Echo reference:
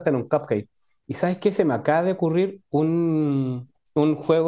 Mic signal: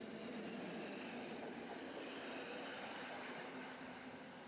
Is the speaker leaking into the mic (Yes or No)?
No